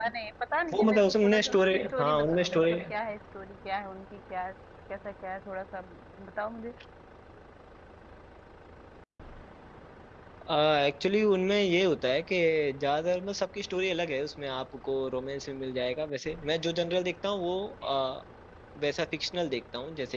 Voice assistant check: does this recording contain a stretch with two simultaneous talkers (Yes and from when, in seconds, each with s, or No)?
Yes, from 0.7 s